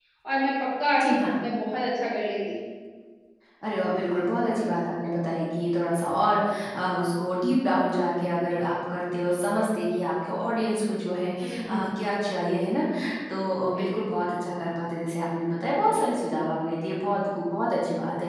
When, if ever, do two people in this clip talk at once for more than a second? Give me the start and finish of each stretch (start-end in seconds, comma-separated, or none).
none